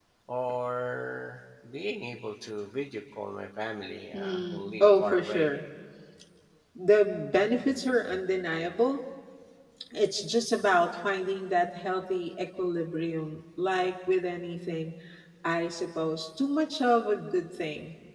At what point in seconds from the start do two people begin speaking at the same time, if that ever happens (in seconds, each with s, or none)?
4.1 s